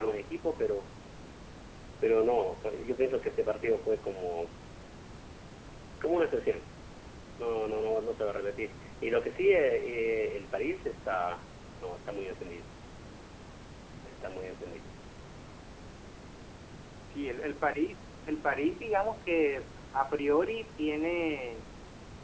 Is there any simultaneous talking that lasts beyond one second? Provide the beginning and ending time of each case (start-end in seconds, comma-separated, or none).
none